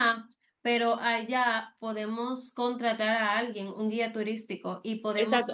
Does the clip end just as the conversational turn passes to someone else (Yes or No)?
Yes